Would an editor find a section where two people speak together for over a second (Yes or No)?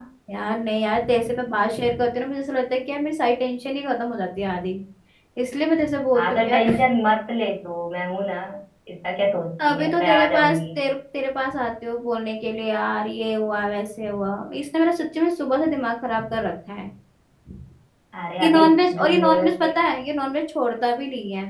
Yes